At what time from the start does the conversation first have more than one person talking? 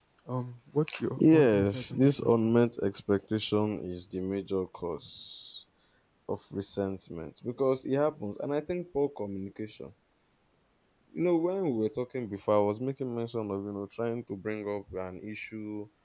1.2 s

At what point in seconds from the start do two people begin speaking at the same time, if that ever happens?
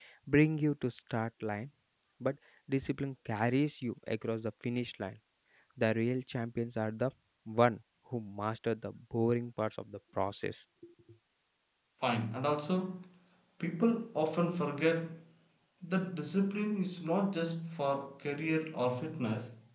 none

